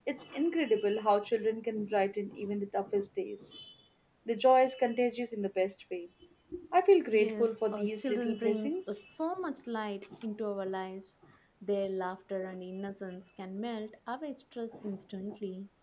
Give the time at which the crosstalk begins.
7.1 s

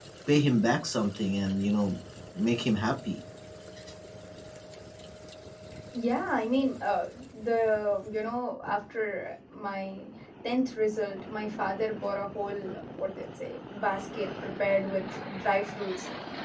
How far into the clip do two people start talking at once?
none

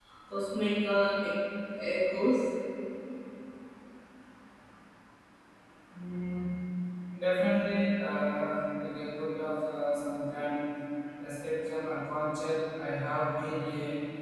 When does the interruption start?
none

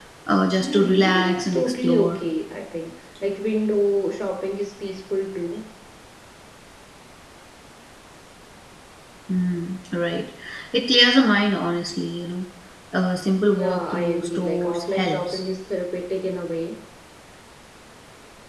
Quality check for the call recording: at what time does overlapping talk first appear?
0.6 s

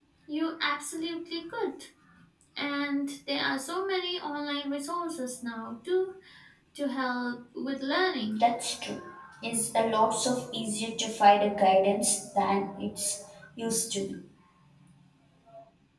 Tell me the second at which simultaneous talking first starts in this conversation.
none

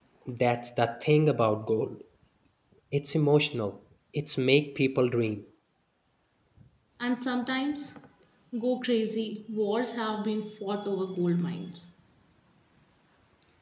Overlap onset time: none

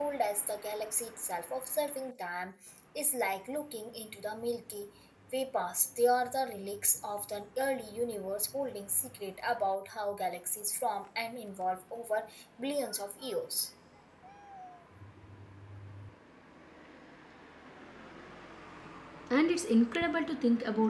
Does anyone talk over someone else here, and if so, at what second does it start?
none

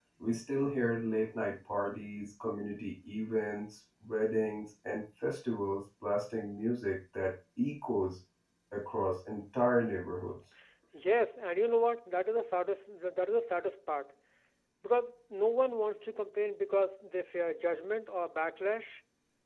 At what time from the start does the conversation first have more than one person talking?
none

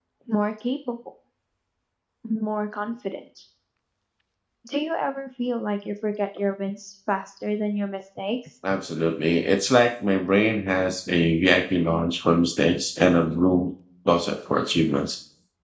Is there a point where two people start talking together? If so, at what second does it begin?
none

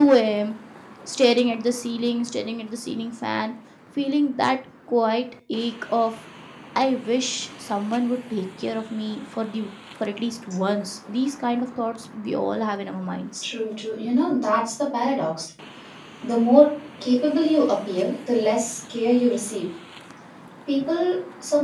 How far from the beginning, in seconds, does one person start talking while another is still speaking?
none

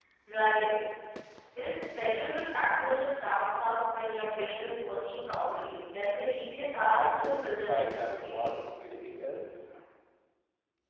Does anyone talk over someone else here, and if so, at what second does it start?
7.0 s

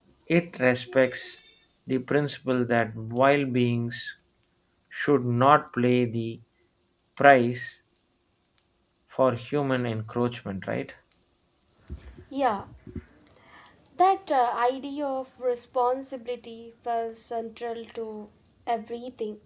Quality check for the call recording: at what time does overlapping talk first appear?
none

